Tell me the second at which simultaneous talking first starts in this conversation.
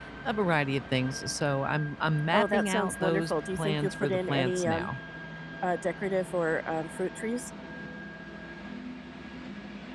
2.3 s

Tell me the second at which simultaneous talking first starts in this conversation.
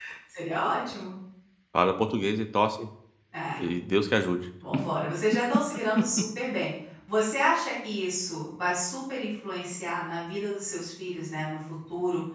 none

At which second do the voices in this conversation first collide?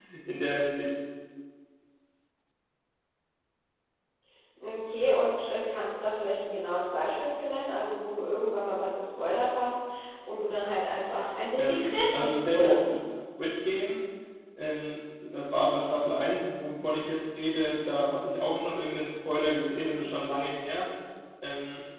11.6 s

